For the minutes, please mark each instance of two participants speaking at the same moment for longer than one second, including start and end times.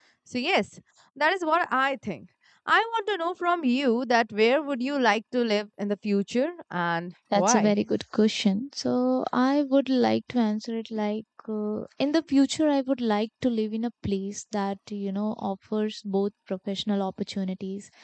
none

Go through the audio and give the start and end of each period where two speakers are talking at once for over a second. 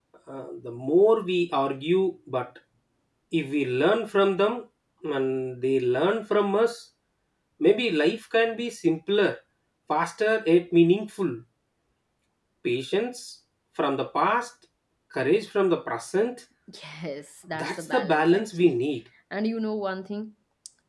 17.6-18.8

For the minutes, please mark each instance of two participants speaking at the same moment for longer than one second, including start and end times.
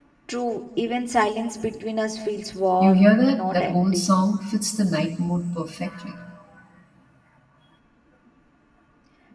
2.8-4.1

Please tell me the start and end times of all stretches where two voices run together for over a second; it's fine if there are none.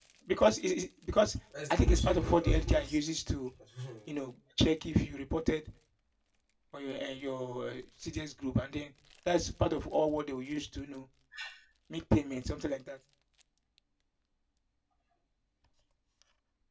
1.7-3.0

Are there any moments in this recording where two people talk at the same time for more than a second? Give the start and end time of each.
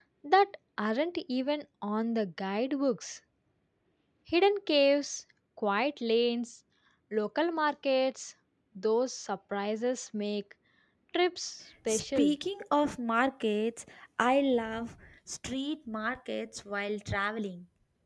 none

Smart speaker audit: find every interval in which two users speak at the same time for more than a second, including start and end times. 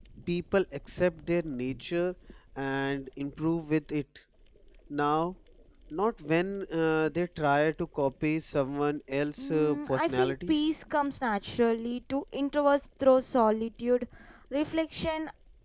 9.4-10.6

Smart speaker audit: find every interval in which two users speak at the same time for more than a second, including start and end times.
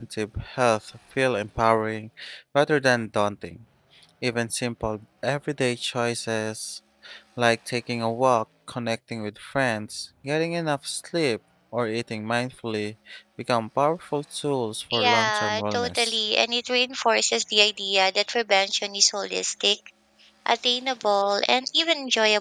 14.9-16.2

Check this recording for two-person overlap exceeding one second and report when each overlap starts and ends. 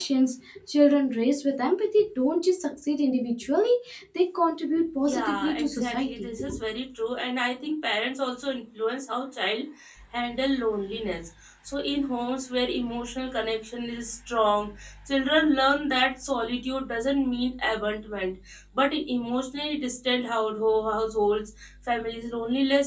5.0-6.4

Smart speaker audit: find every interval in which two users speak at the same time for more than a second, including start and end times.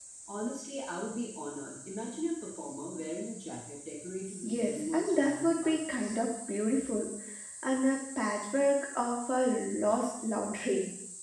4.4-6.1

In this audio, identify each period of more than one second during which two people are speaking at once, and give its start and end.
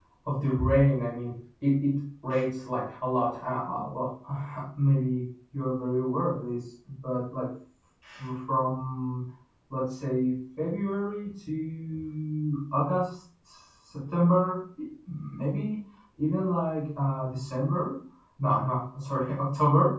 none

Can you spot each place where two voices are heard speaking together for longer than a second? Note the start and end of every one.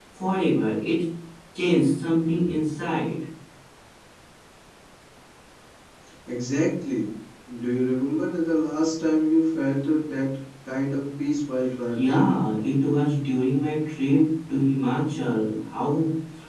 none

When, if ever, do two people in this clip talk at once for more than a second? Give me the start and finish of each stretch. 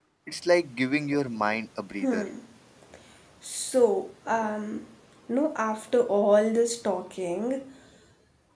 none

